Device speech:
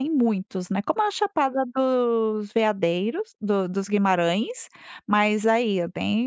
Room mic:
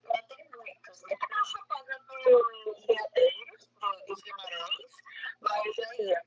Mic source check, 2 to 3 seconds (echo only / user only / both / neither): echo only